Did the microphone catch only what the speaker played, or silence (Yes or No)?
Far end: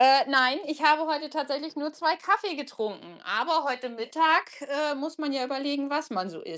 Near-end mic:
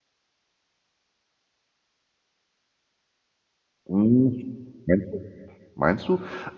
No